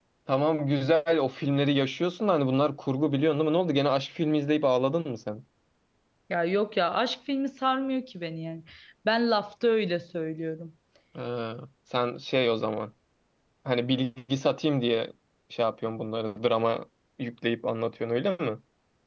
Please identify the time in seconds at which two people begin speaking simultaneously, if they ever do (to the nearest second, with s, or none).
none